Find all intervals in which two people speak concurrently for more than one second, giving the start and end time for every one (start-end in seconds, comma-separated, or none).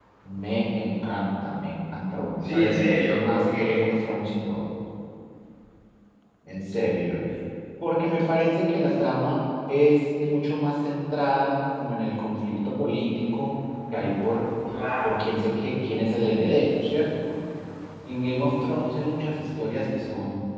2.4-4.1